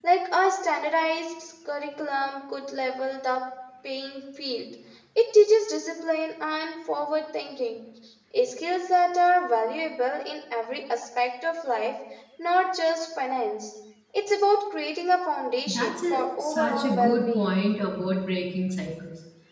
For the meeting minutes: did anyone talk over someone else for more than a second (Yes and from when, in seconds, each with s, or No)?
Yes, from 15.7 s